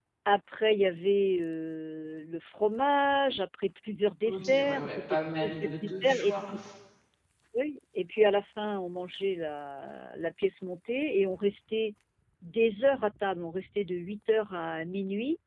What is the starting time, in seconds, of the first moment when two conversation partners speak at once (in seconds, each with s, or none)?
4.3 s